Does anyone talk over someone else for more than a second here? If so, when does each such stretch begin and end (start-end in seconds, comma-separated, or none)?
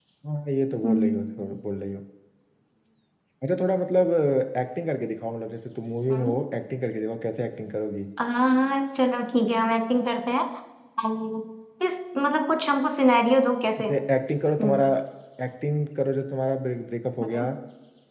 none